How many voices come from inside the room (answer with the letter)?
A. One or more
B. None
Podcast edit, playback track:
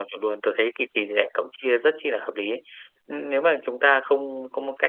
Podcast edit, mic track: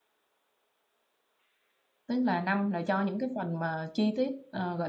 A